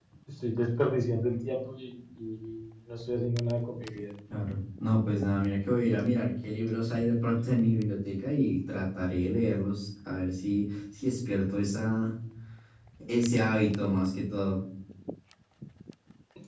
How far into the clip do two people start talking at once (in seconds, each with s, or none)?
none